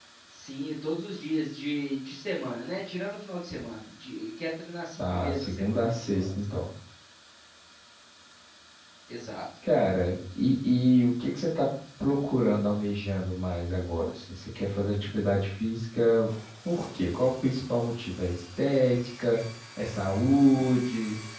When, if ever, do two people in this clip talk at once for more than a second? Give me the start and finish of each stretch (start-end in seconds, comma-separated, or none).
5.0-6.6